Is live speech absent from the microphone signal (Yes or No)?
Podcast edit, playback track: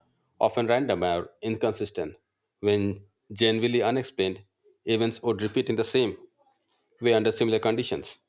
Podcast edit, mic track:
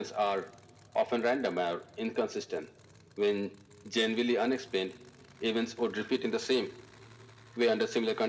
Yes